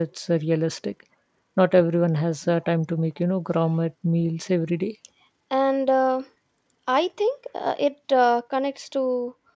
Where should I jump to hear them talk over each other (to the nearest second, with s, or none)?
none